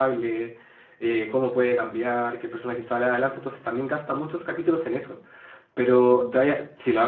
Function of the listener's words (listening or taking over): listening